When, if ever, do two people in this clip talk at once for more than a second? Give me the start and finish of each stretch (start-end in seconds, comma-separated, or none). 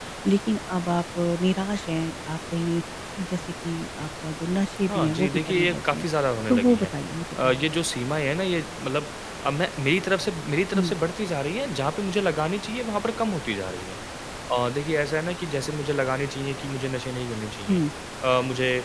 4.8-6.0